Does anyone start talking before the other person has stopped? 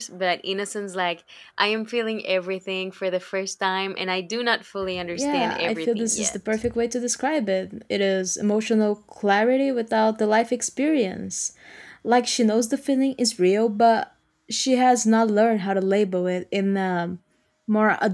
Yes, from 4.9 s

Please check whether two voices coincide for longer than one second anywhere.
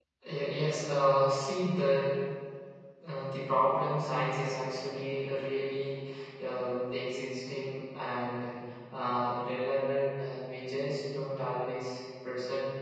No

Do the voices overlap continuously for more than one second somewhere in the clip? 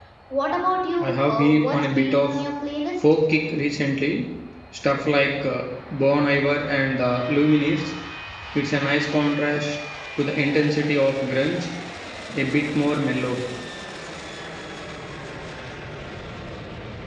Yes, from 1.0 s

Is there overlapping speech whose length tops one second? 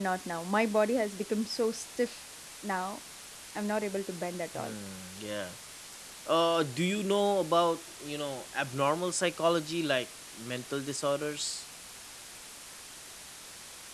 No

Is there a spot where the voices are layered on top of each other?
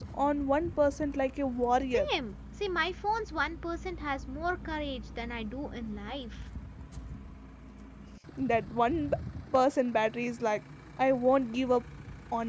No

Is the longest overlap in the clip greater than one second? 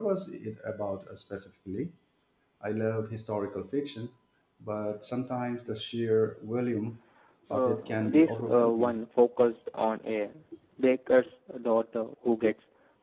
Yes, from 7.5 s

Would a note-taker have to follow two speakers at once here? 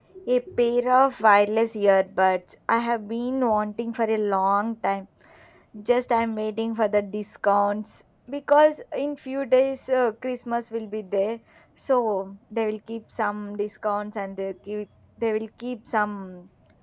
No

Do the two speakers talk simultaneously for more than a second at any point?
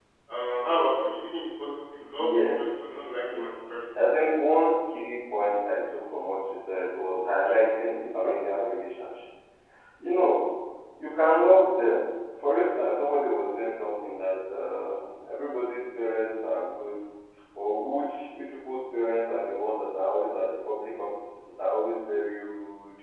Yes, from 2.2 s

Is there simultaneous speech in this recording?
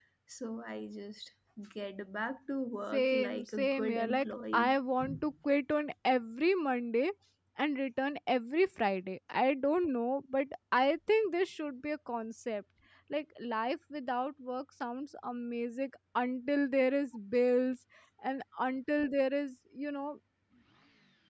Yes, from 2.9 s

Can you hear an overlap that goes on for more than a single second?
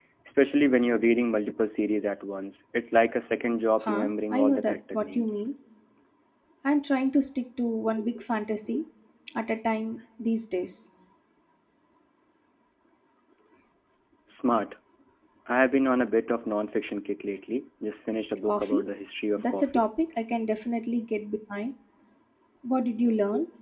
Yes, from 3.8 s

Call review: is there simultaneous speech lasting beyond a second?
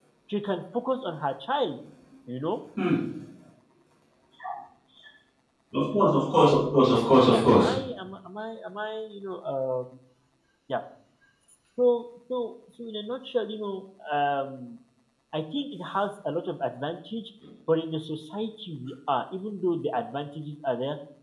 No

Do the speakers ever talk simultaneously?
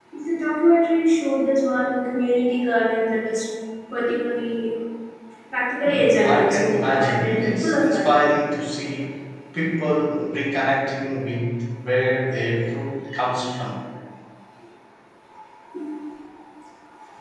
Yes, from 5.8 s

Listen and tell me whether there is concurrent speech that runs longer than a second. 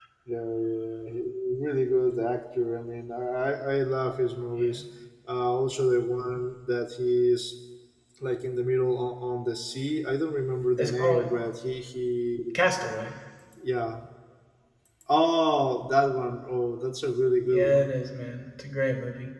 No

